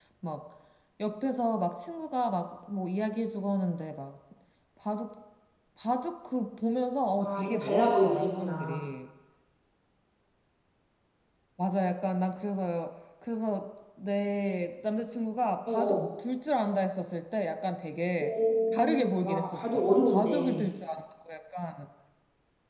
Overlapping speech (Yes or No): Yes